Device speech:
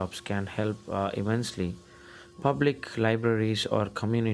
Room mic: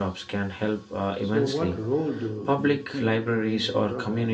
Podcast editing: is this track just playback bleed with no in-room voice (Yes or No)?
No